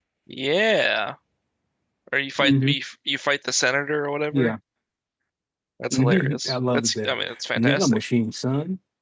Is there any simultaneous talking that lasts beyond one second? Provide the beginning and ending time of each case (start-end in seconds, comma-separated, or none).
5.9-7.1